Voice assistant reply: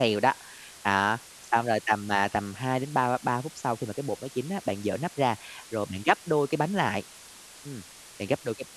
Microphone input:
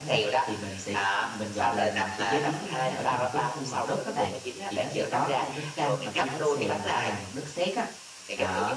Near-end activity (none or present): present